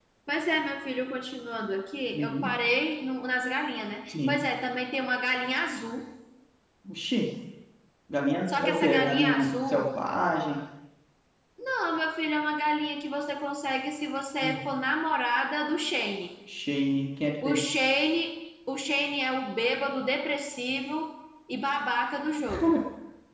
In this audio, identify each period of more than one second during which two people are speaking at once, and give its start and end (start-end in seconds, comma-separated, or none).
8.5-9.9